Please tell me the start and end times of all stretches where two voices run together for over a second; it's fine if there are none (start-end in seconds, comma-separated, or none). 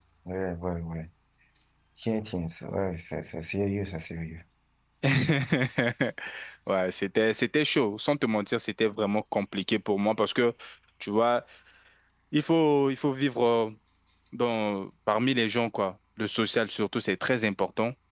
none